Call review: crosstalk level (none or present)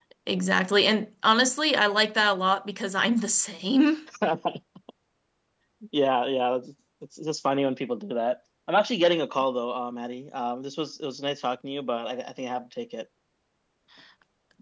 none